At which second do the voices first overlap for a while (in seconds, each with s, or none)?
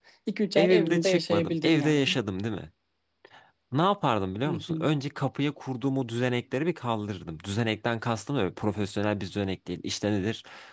0.6 s